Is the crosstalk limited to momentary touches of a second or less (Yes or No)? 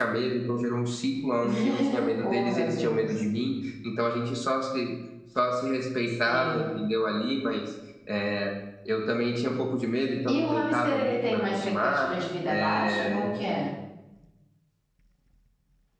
No